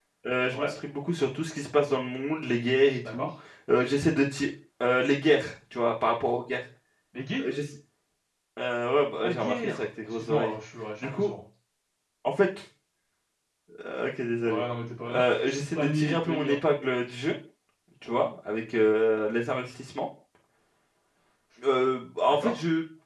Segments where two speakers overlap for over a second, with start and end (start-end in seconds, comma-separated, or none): 9.2-10.6, 15.0-16.6